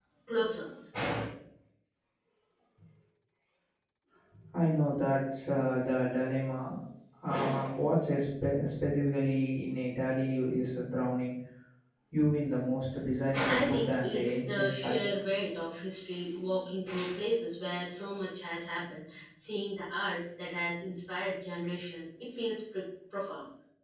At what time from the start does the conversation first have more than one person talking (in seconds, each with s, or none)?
13.5 s